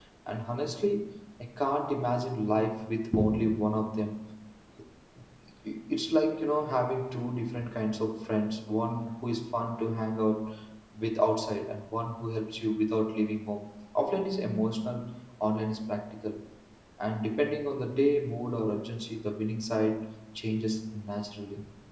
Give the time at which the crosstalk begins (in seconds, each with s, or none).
none